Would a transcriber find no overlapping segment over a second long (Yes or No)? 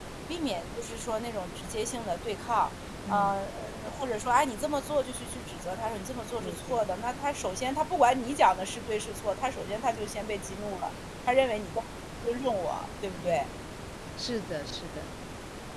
Yes